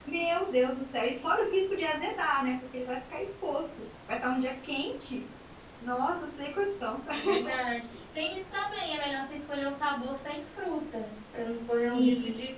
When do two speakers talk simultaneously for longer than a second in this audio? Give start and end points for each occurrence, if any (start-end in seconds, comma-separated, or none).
none